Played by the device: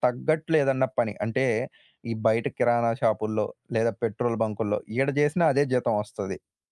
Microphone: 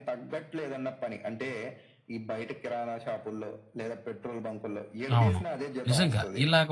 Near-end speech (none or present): present